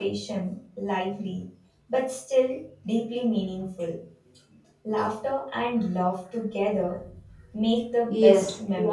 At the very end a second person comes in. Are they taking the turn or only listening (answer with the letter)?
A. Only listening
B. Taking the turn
B